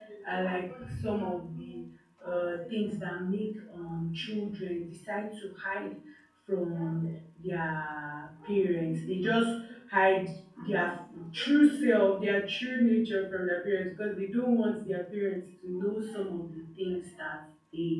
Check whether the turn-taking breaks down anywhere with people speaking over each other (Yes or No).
No